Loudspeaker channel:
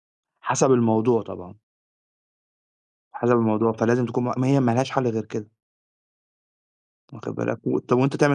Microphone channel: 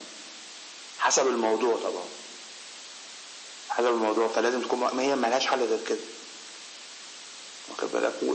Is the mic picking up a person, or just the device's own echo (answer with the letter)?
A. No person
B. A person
A